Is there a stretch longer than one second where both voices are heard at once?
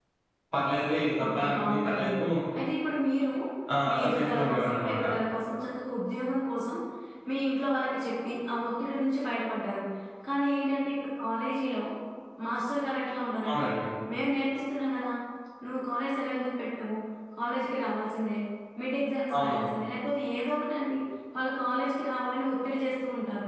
Yes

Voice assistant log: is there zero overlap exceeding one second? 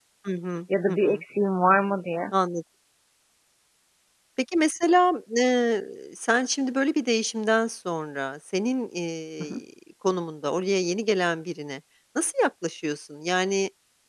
Yes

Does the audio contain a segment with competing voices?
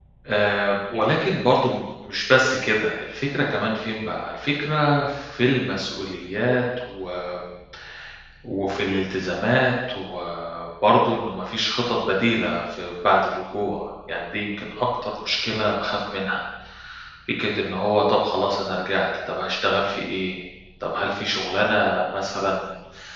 No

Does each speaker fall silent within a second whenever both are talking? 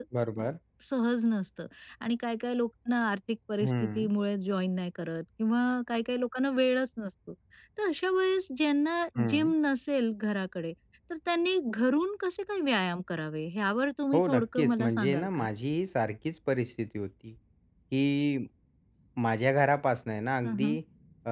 No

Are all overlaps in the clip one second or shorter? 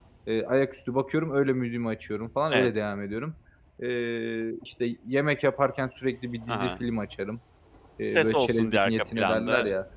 No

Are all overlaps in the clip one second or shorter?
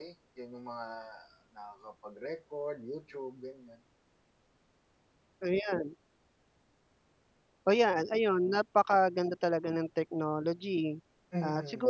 Yes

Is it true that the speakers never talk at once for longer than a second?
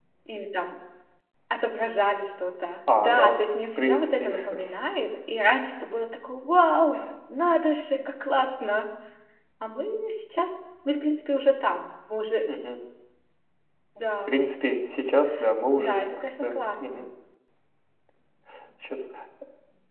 No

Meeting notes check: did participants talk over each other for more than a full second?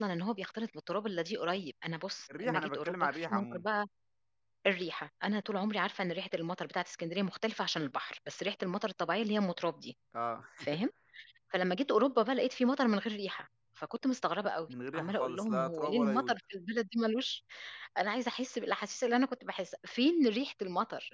Yes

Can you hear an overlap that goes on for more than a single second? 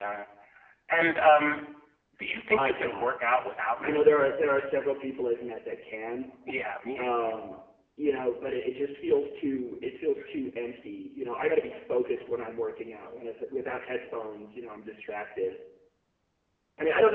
No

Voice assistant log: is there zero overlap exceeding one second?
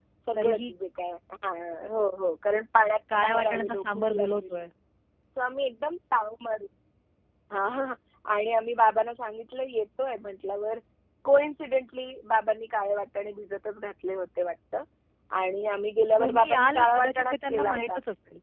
No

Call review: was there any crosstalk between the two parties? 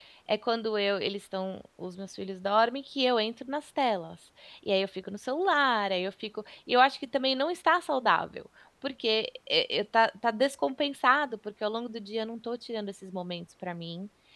No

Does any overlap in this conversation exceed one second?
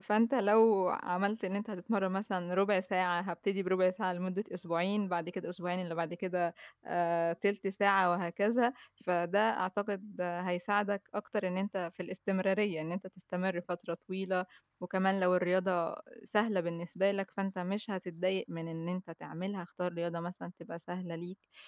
No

